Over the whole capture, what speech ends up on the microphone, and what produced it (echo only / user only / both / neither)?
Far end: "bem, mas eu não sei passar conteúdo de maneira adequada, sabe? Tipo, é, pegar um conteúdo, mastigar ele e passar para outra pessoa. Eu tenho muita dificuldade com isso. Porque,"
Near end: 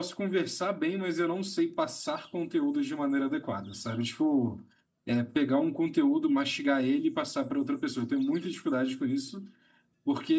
echo only